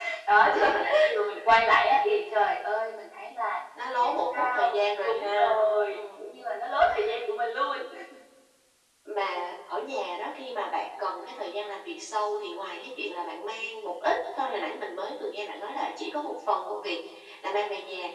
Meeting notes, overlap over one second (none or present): present